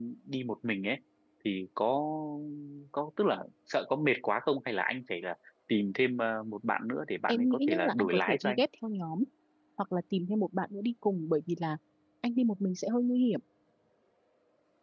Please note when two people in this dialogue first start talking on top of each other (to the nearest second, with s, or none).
7 s